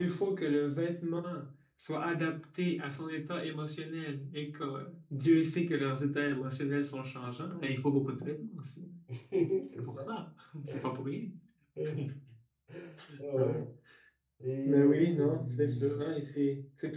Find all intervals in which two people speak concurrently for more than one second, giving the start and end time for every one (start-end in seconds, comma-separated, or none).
14.6-16.0